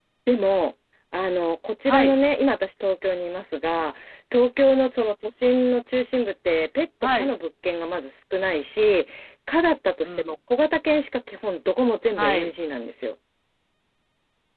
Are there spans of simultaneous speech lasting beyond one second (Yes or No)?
No